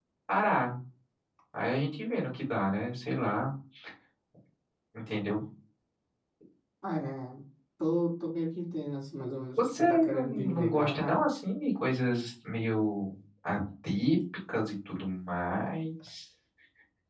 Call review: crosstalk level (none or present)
present